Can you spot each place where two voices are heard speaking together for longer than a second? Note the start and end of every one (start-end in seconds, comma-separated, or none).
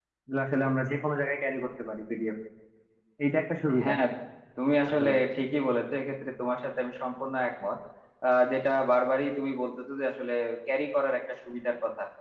none